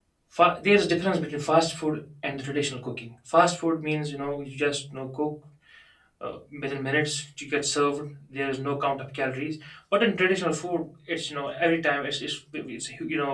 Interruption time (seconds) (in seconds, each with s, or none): none